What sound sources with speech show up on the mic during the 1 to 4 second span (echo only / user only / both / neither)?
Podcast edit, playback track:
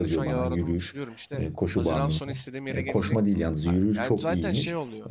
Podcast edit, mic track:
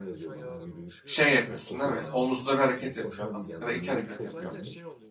both